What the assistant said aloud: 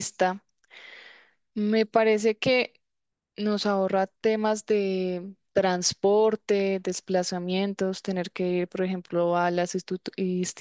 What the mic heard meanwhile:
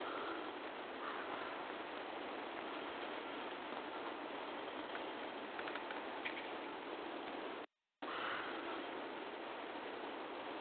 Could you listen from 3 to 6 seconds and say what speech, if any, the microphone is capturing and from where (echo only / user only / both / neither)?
neither